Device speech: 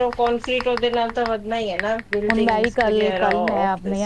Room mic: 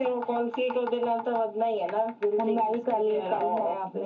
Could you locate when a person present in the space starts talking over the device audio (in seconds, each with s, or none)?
none